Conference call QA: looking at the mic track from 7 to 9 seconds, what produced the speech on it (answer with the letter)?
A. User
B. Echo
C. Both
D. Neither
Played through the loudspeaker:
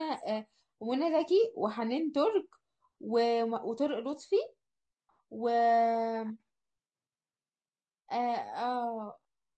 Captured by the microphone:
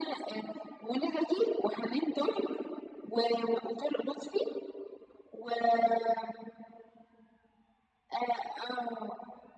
B